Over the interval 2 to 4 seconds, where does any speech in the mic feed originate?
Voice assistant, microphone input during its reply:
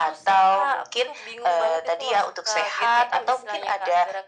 echo only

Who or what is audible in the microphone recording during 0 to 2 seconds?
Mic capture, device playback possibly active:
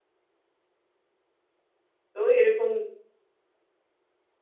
neither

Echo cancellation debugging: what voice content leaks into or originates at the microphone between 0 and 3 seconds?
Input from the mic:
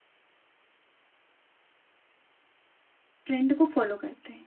neither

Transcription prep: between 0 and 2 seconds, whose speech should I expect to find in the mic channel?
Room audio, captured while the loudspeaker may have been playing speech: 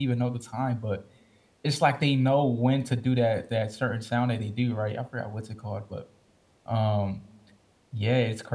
user only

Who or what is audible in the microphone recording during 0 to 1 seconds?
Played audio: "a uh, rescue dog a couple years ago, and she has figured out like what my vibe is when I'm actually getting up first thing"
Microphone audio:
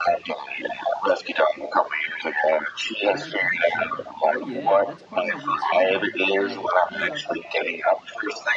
echo only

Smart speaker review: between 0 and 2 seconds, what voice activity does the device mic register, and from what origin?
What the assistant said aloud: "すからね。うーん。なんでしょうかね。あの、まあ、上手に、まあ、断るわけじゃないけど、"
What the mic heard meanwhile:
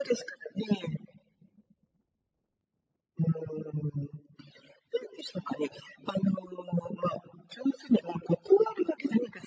echo only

